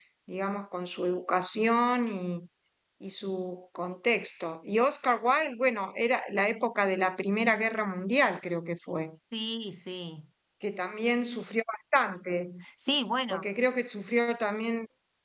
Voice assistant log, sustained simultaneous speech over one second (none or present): none